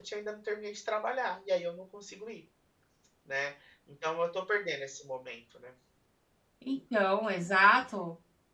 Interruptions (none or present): none